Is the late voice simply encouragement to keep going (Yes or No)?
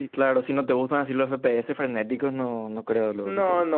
No